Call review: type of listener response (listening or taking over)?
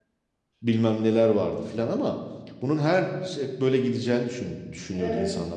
listening